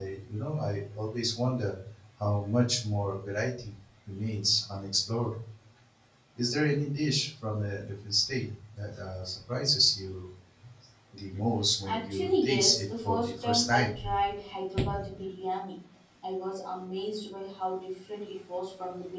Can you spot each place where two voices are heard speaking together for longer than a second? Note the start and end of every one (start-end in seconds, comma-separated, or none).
11.9-13.9